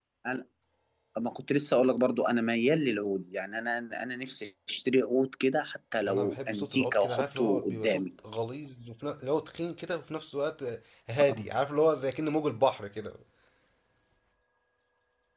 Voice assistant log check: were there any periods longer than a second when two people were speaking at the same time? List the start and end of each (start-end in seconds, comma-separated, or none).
6.1-8.1